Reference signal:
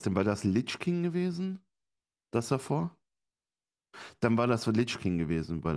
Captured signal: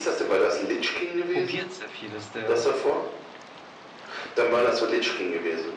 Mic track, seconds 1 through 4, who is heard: both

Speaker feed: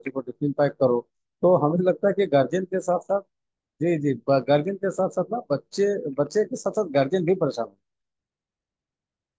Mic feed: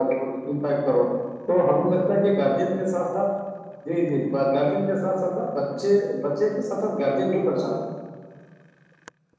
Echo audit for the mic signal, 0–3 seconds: echo only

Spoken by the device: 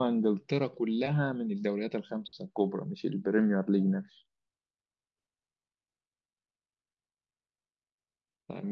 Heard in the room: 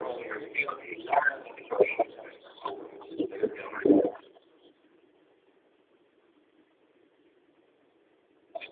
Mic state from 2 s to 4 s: echo only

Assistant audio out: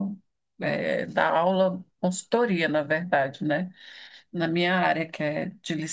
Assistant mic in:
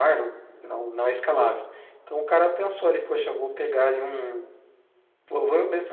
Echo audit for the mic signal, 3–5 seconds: user only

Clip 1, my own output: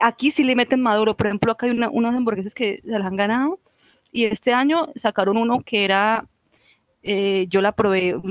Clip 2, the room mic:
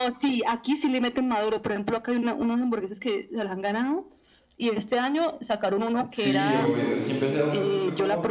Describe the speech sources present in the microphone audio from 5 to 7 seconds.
both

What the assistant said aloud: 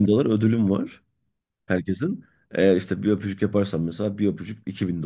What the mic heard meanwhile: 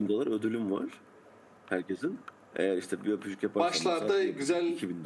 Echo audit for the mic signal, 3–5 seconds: both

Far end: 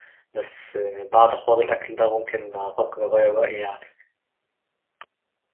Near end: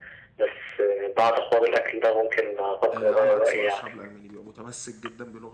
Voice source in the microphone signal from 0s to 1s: echo only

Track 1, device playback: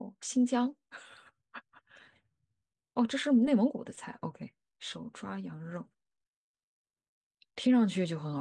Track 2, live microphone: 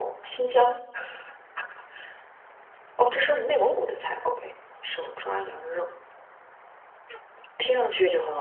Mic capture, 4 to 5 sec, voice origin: echo only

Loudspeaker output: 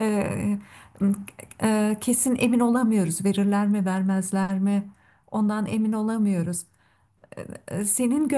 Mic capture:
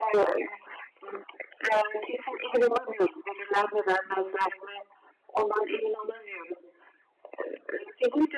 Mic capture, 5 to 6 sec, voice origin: echo only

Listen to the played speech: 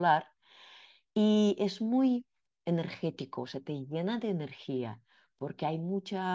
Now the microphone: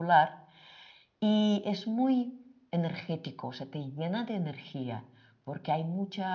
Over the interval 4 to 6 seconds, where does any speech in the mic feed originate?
echo only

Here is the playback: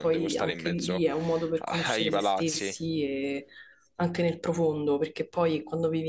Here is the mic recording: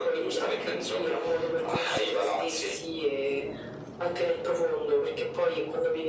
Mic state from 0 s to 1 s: echo only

